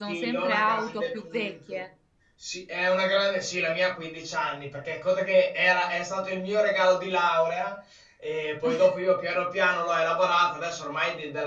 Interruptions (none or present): present